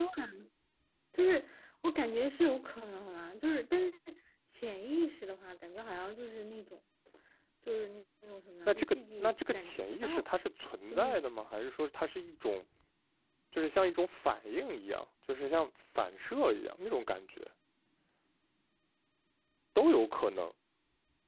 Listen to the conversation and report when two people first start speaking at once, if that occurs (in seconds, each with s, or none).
8.7 s